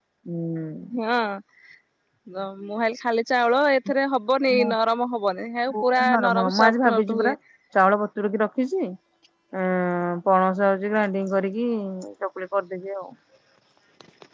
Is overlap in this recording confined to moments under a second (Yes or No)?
No